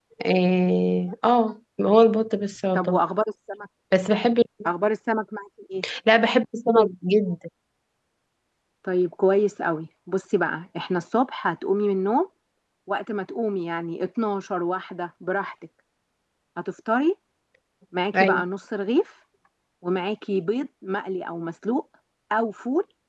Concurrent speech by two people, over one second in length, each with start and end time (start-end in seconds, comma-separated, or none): none